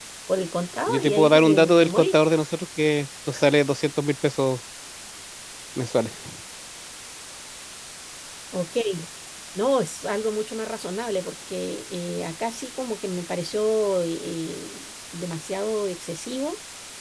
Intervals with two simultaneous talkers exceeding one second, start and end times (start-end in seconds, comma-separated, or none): 0.9-2.2